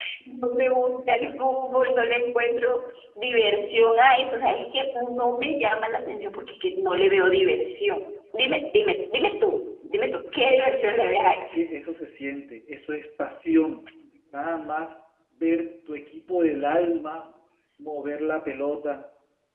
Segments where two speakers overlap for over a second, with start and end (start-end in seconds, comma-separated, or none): none